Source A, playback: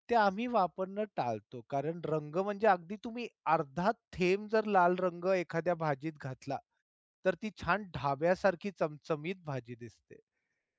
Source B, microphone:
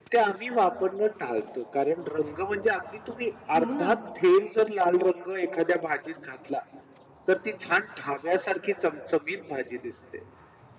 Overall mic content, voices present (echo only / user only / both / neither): both